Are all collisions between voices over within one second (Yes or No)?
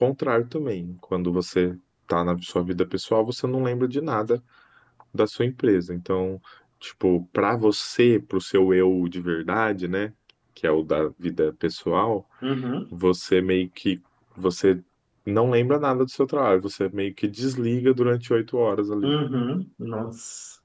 Yes